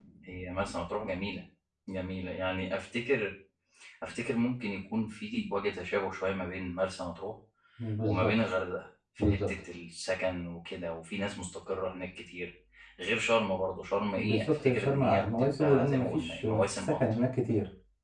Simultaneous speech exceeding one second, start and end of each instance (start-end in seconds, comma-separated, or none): 14.2-17.2